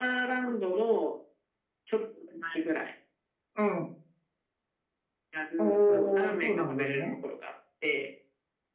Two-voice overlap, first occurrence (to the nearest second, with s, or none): 6 s